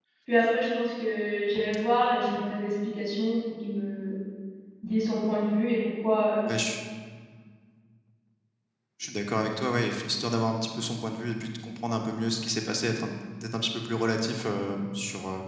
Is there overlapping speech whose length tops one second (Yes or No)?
No